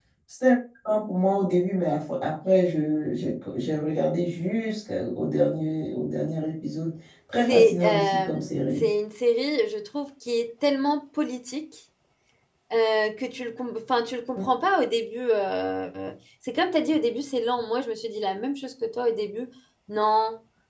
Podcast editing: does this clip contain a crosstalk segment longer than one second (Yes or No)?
Yes